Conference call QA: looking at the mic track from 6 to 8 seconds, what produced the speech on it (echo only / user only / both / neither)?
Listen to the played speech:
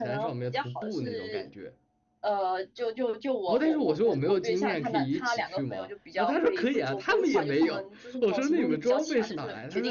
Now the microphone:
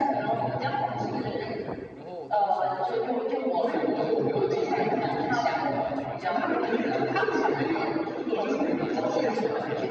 both